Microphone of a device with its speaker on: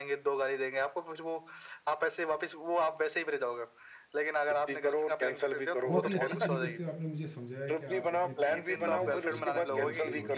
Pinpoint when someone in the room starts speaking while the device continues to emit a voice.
5.9 s

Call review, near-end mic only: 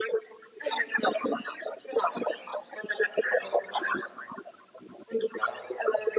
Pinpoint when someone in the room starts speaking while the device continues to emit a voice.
none

